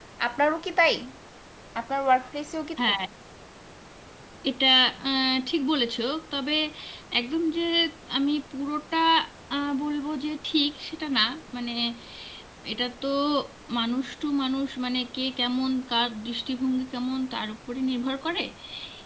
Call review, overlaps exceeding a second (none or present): none